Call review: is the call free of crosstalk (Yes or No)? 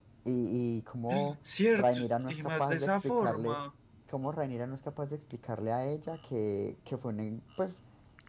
No